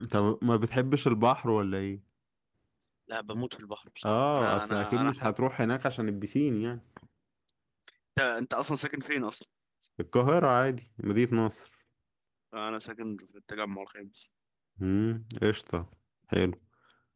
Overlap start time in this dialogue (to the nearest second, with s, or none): 4 s